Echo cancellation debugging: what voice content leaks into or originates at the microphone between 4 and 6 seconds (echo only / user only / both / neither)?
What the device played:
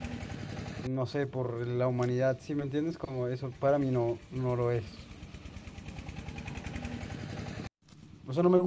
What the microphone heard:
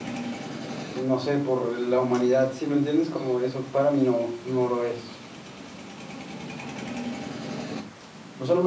echo only